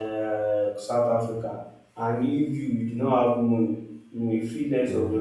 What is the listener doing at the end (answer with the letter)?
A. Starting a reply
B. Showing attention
B